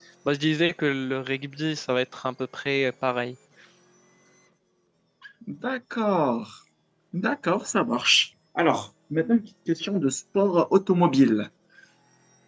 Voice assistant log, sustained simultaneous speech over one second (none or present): none